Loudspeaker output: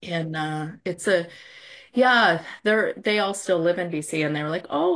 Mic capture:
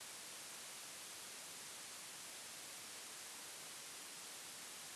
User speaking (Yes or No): No